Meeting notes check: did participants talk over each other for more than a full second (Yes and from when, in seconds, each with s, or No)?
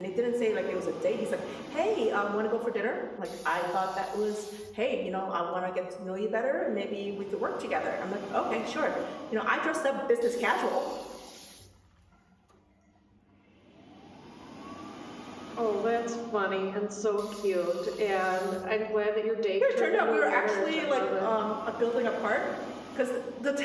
Yes, from 19.6 s